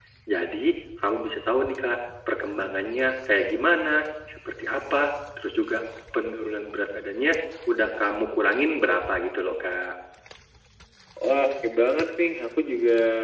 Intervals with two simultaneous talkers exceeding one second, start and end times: none

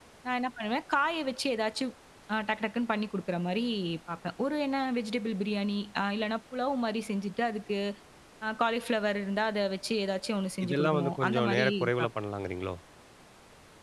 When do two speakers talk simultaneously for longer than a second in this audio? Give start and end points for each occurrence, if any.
10.6-12.1

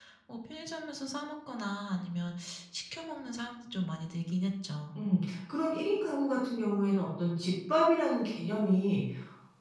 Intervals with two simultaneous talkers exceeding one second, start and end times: none

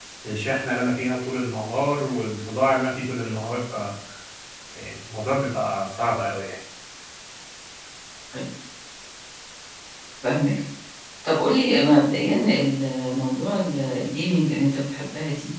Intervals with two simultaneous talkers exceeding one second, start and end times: none

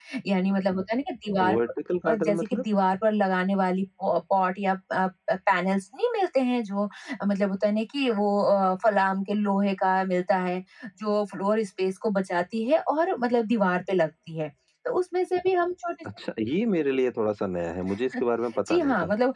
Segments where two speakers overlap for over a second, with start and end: none

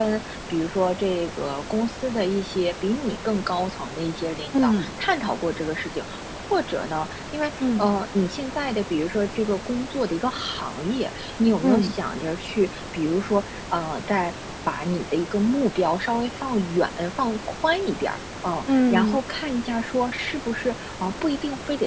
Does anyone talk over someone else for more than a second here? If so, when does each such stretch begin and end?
none

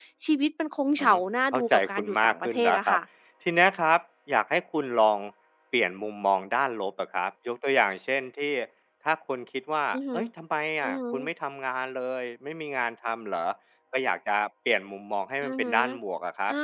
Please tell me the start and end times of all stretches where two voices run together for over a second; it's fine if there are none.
1.5-3.0

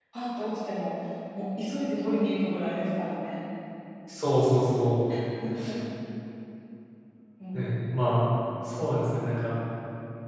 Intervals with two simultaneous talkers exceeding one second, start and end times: none

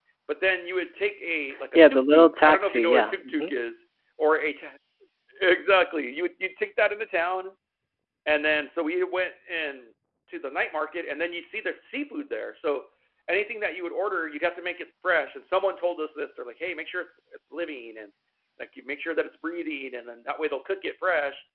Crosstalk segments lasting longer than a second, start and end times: 1.7-3.5

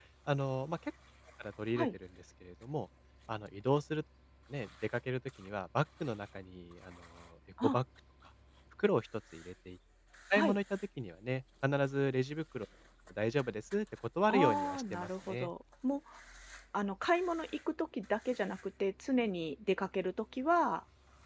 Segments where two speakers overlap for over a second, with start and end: 14.3-15.5

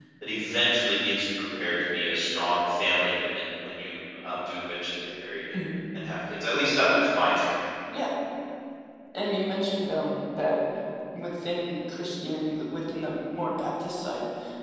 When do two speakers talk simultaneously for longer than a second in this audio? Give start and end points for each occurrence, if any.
none

